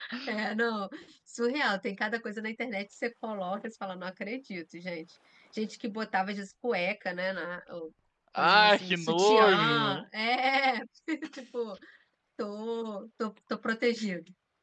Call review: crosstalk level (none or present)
present